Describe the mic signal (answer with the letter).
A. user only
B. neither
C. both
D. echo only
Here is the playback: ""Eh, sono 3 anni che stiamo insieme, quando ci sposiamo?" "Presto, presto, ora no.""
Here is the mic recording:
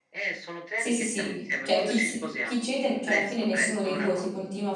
C